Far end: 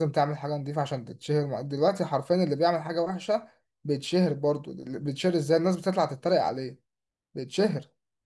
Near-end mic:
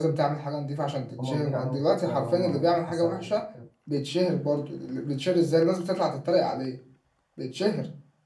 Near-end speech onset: 1.2 s

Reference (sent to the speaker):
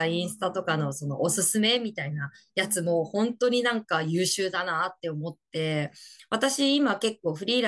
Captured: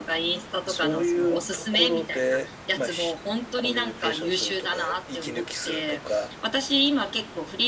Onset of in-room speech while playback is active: 0.7 s

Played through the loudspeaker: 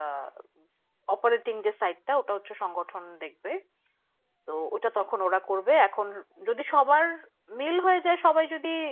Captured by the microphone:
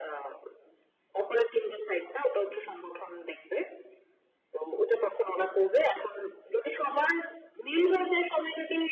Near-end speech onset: none

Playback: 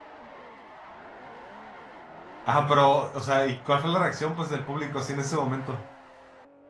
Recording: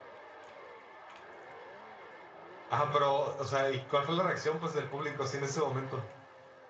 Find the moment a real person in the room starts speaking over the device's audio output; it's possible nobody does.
none

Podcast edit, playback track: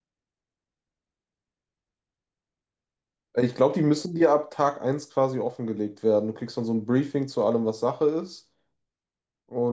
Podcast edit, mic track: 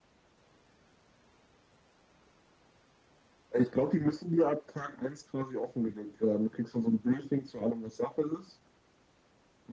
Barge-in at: none

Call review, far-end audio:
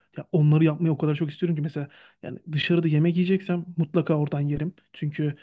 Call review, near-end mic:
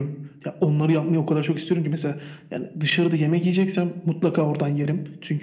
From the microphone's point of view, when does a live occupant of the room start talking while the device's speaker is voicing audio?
none

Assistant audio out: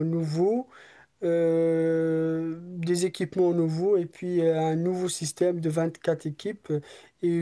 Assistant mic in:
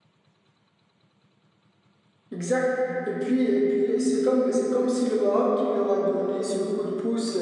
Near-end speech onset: 2.3 s

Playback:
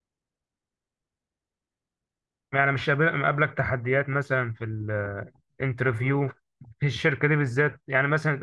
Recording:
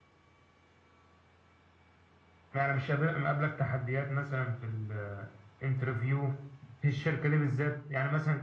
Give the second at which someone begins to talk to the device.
none

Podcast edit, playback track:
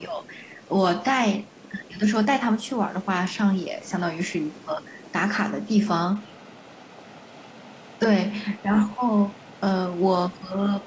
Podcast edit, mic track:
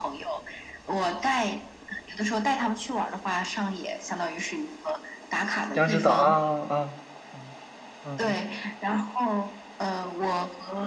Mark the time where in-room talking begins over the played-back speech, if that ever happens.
5.7 s

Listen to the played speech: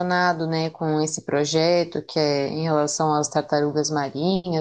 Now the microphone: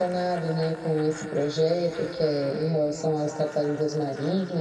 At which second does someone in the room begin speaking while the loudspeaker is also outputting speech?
none

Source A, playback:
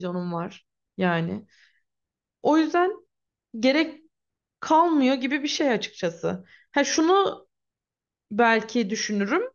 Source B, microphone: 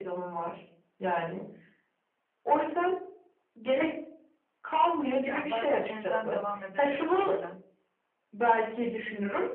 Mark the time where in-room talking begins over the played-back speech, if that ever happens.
5.2 s

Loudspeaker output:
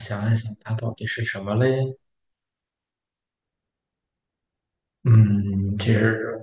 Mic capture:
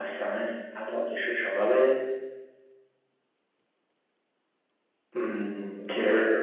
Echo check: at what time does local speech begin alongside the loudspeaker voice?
none

